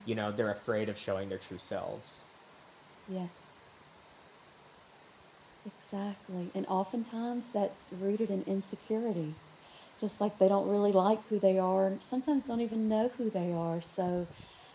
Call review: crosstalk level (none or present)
none